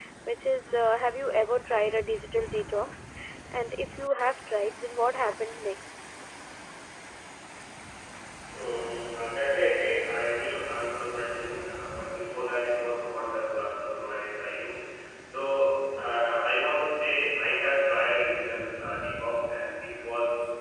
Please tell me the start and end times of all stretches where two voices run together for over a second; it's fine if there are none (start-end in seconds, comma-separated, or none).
none